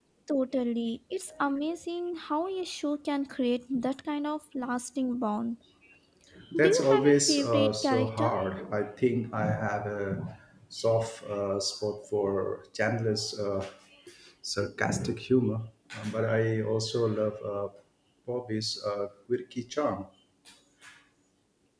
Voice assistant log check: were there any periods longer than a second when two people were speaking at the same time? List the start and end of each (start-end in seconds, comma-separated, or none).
6.6-8.3